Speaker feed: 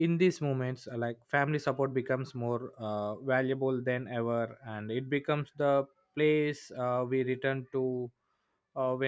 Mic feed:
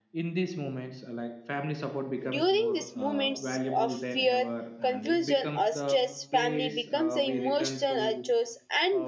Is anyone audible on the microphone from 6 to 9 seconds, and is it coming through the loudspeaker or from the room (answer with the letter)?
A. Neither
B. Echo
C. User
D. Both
D